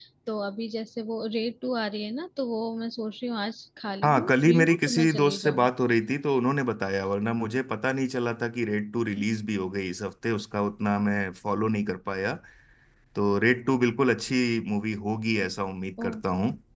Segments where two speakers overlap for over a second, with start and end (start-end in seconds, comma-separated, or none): 4.0-5.7